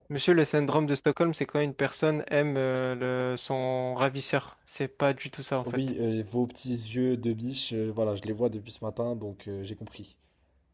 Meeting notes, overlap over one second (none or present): none